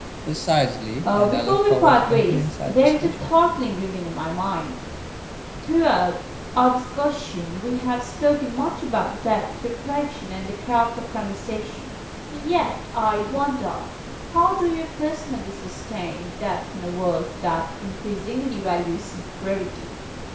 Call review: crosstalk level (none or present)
present